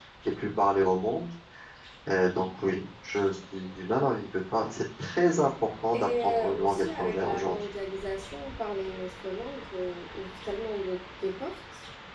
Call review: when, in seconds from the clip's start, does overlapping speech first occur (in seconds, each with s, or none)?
5.9 s